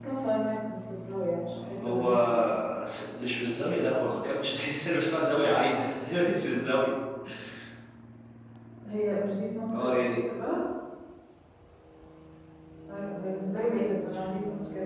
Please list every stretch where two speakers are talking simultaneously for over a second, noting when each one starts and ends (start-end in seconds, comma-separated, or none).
none